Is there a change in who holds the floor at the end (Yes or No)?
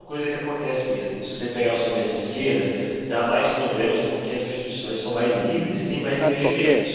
Yes